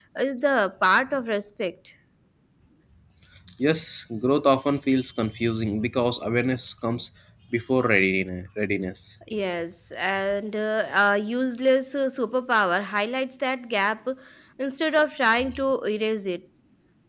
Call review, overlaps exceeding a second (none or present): none